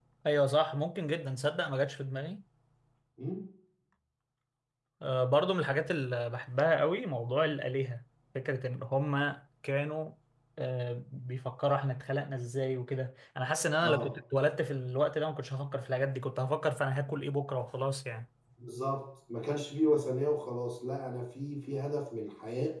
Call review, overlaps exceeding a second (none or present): none